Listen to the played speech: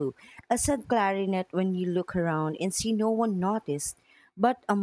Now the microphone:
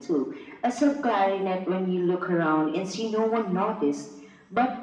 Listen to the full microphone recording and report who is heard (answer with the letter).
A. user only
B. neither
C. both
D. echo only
D